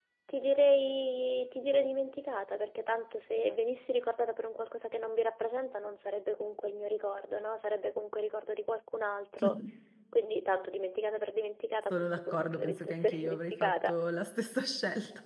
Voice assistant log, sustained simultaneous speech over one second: present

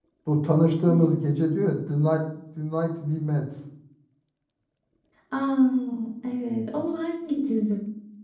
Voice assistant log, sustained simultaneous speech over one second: none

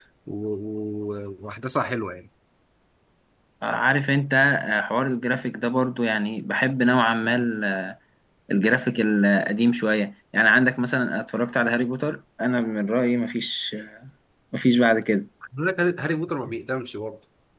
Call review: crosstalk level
none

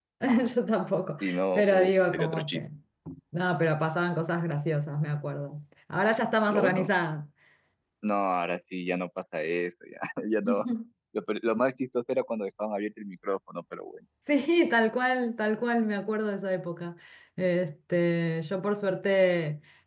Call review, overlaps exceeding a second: present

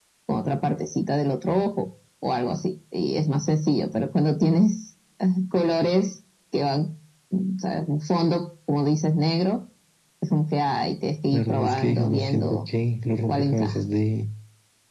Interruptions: present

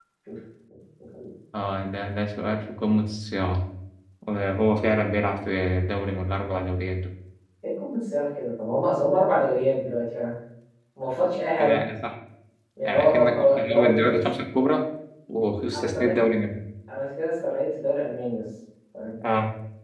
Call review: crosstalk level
present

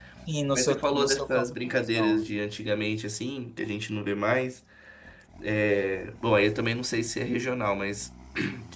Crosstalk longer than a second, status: present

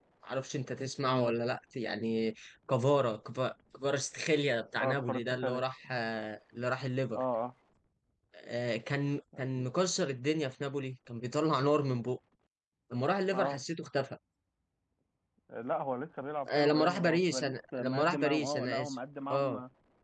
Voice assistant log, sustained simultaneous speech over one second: present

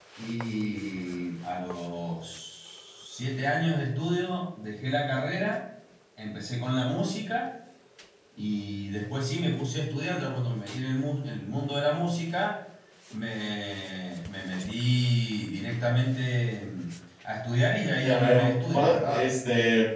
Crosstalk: present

